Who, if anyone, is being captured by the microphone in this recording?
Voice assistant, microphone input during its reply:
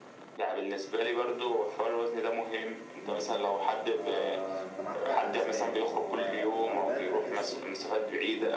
both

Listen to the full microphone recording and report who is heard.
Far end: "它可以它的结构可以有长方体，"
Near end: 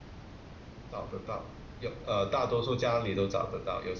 user only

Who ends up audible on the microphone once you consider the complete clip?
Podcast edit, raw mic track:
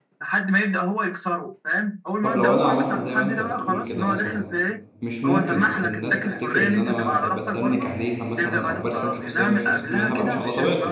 both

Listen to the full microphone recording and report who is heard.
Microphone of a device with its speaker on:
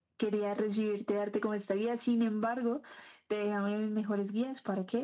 echo only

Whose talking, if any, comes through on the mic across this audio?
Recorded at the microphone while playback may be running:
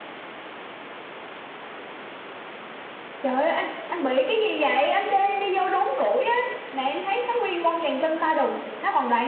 user only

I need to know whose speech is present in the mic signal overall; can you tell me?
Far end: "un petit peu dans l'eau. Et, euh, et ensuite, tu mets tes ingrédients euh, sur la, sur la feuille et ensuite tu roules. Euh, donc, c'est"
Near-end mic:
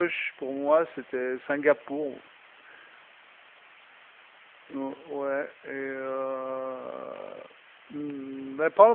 user only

